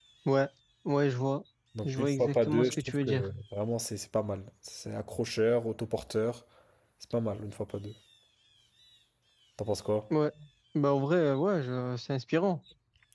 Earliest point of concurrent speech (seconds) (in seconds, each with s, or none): 1.8 s